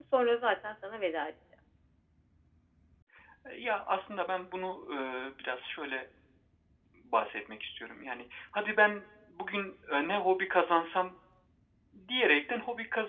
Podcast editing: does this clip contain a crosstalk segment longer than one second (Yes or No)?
No